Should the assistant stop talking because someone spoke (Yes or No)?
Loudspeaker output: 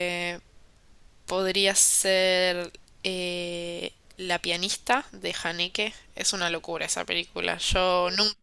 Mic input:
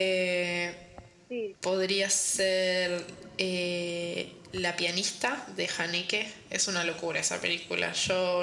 Yes